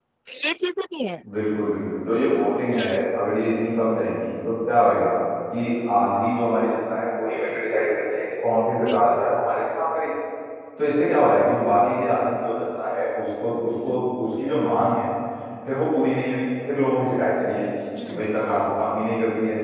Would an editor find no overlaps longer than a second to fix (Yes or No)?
Yes